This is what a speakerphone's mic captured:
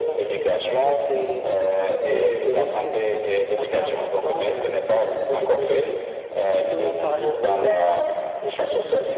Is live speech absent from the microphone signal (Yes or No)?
No